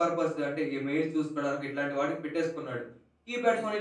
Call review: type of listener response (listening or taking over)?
listening